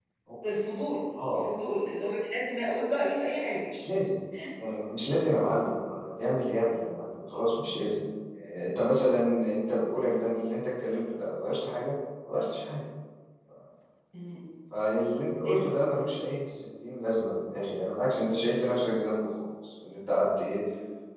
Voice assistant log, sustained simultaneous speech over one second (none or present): none